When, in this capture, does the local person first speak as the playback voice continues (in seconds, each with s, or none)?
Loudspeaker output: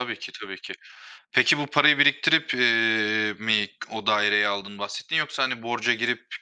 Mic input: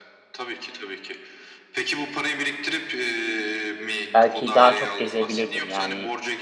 4.1 s